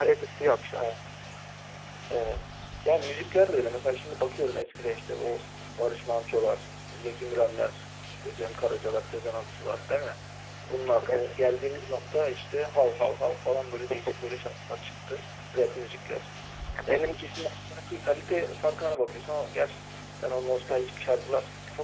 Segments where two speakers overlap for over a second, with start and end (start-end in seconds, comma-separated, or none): none